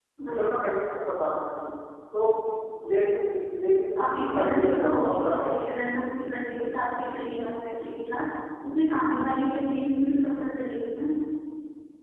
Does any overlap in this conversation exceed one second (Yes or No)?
Yes